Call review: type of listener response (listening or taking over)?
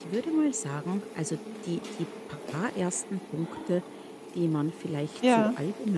listening